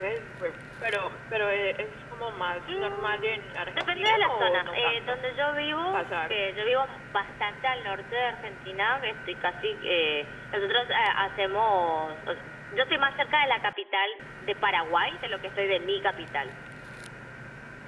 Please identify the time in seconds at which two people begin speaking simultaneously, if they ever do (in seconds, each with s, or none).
2.7 s